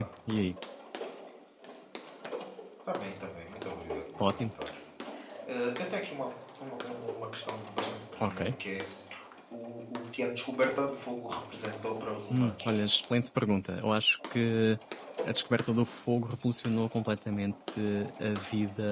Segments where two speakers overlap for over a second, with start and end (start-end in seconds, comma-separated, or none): none